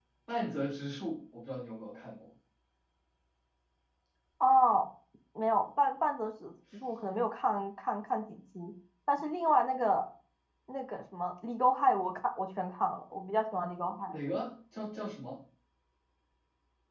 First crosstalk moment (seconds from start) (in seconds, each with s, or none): none